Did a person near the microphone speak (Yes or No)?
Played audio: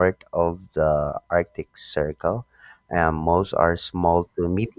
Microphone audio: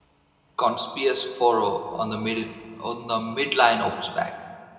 Yes